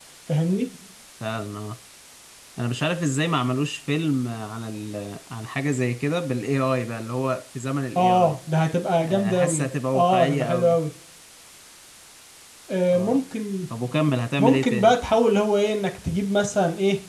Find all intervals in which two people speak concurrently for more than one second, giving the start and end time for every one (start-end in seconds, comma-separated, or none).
9.3-10.8